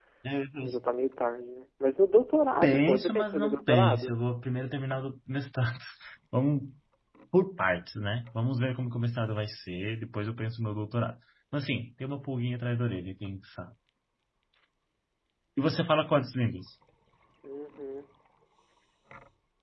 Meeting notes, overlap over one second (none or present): present